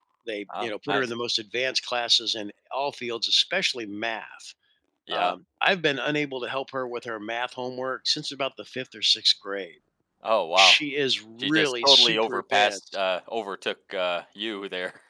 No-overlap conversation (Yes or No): No